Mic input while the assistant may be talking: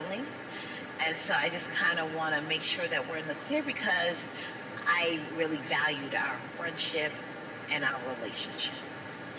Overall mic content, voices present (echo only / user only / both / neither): echo only